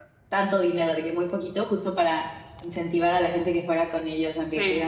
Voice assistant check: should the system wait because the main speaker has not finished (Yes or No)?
Yes